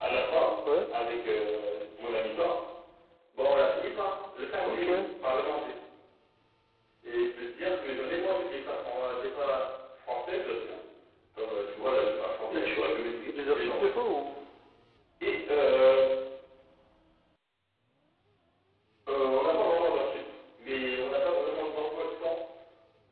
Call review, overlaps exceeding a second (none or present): present